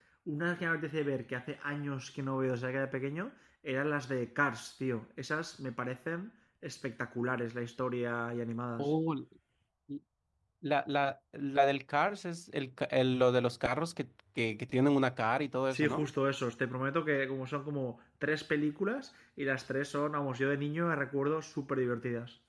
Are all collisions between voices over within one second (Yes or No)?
Yes